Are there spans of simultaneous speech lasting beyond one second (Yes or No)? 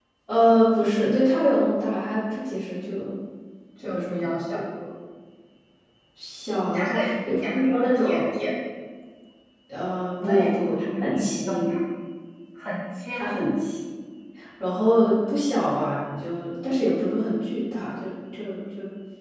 Yes